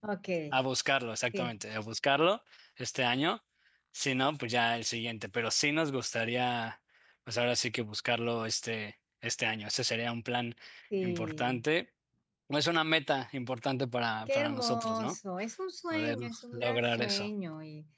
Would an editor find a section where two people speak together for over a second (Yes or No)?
Yes